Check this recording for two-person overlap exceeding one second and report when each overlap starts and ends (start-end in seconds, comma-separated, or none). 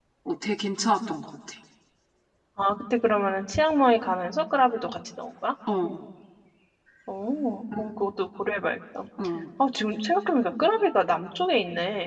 none